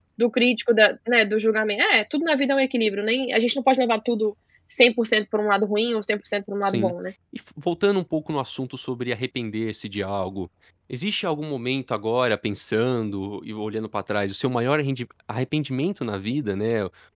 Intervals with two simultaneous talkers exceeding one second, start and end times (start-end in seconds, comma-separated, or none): none